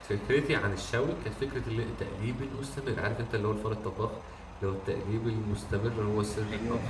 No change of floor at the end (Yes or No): Yes